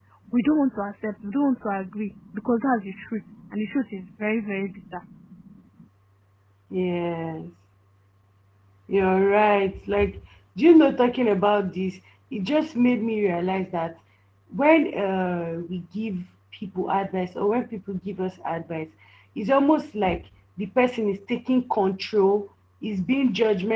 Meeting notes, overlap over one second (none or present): none